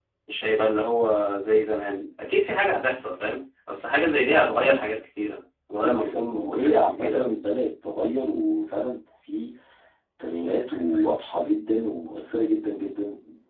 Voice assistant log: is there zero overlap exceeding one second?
No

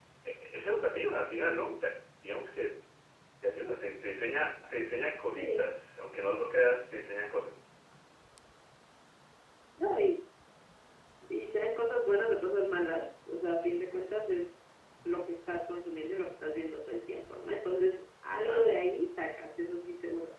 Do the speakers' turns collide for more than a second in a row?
No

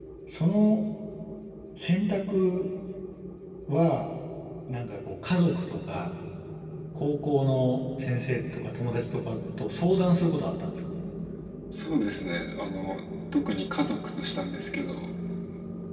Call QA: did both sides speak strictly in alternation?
Yes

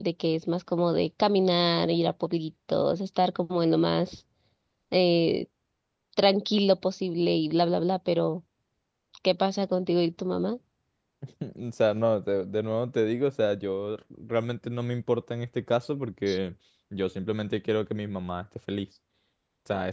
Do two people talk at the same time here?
No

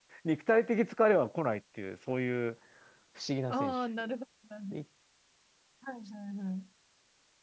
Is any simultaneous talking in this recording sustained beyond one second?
No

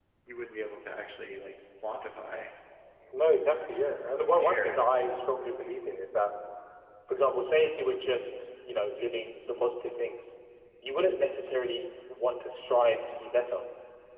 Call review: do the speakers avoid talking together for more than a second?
No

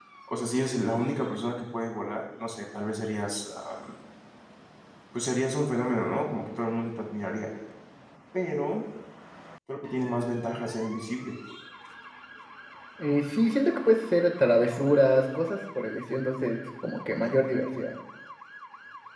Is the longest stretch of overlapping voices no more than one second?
Yes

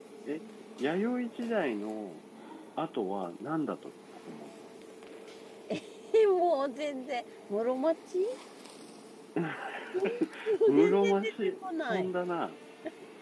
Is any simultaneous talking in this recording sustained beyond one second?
Yes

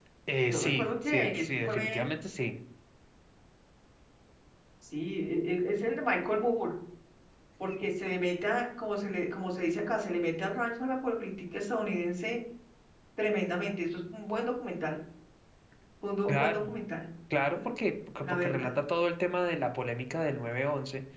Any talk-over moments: Yes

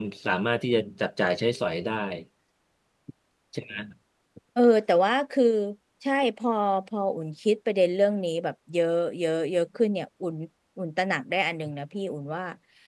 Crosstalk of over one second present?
No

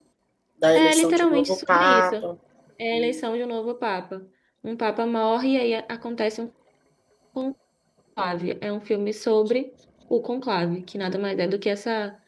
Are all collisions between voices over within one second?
No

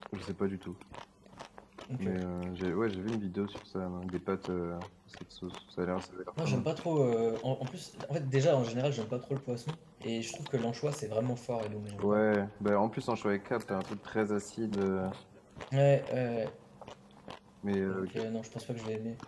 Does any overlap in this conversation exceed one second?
No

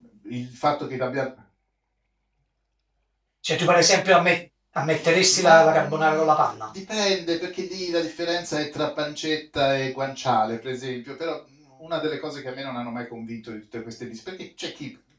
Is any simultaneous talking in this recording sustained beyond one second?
Yes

